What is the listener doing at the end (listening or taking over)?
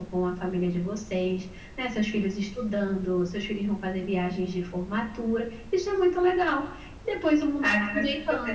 taking over